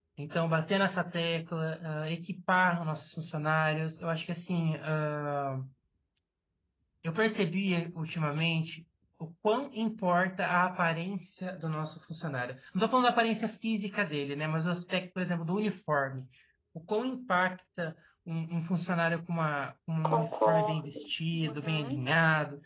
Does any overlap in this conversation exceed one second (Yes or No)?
Yes